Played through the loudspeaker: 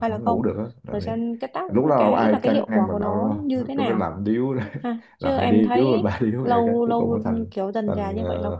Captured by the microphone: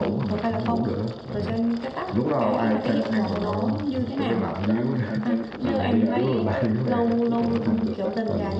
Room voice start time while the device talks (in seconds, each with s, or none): 3.6 s